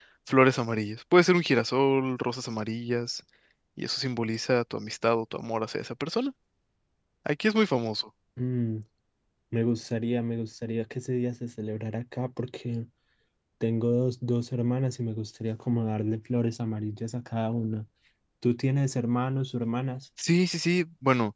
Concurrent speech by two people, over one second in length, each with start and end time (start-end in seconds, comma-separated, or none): none